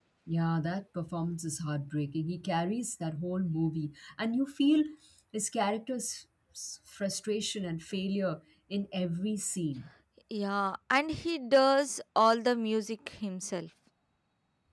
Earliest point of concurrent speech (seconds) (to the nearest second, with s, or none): none